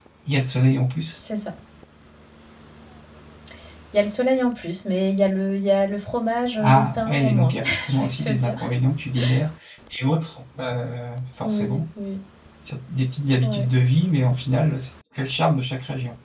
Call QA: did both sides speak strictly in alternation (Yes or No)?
No